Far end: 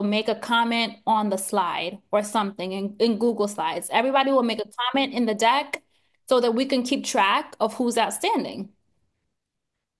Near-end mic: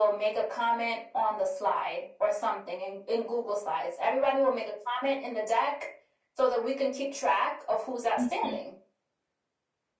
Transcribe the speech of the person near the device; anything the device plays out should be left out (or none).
Mhm.